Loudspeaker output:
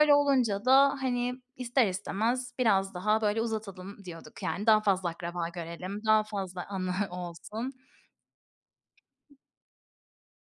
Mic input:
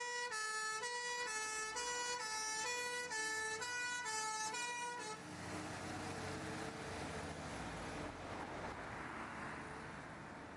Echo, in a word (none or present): none